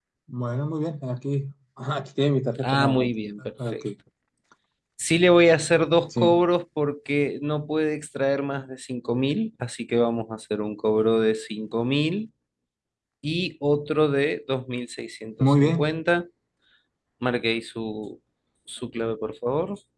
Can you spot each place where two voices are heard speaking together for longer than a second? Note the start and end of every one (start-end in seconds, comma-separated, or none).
none